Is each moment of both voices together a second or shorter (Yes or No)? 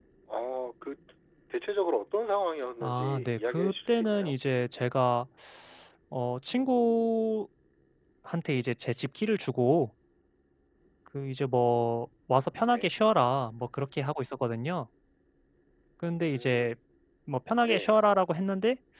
No